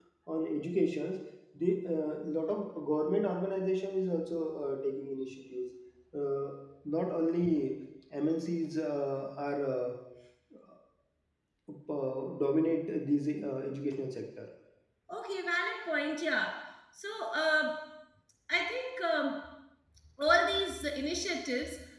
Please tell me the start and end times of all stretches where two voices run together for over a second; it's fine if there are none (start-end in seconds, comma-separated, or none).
none